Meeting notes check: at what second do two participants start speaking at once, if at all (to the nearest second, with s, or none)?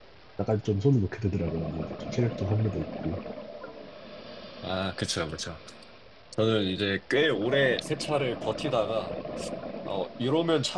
none